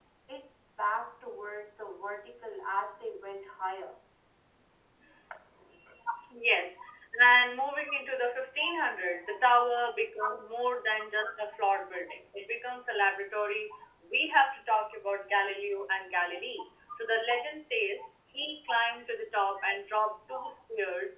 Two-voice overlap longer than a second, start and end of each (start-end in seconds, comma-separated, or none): none